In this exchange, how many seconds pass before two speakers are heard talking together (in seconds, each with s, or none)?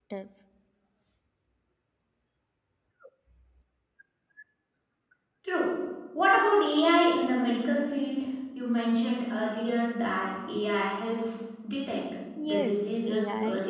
12.4 s